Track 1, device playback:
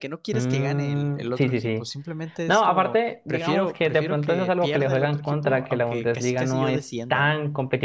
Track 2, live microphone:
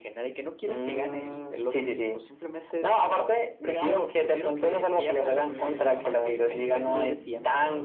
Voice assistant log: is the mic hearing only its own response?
No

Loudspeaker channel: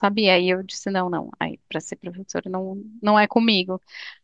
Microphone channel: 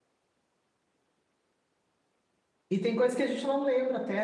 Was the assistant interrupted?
Yes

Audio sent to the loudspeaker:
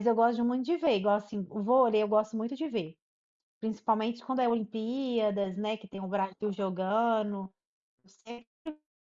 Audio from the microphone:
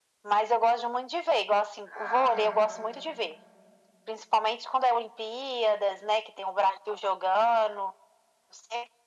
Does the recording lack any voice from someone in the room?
No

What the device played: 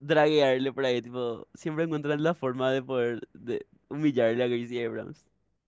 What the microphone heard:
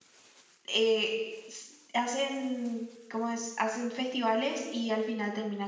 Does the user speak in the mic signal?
Yes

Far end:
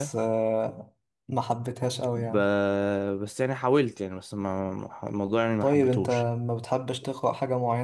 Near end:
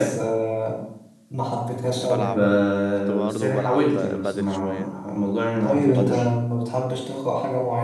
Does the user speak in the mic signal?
Yes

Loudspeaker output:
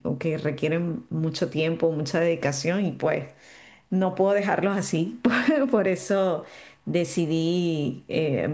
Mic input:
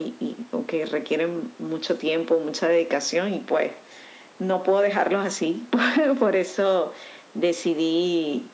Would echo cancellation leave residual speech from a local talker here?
No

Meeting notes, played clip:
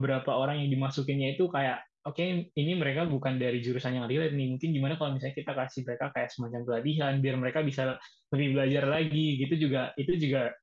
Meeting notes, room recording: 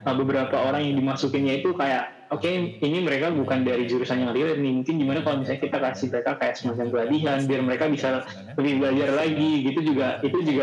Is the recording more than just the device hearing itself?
Yes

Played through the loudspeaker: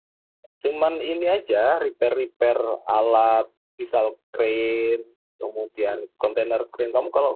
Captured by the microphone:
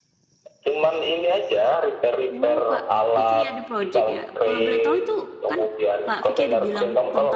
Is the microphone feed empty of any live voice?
No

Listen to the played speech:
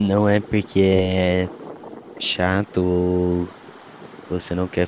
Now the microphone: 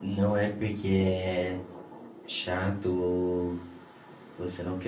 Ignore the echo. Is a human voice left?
No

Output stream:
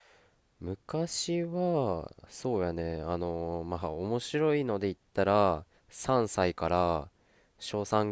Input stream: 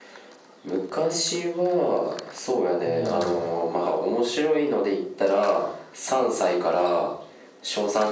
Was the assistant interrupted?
Yes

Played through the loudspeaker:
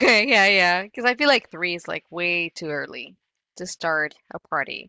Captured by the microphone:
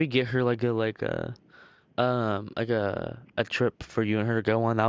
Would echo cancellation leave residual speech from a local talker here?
Yes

